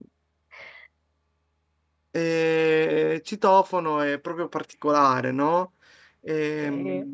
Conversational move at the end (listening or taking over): listening